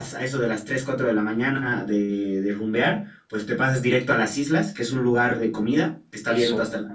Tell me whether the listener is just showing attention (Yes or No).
Yes